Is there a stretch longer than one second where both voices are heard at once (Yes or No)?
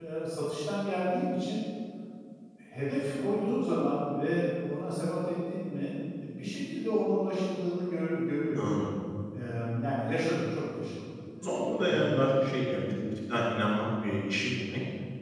No